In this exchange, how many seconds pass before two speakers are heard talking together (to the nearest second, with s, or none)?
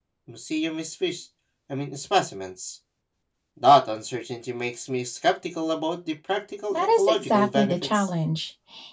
7 s